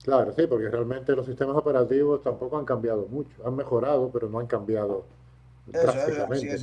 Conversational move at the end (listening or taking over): taking over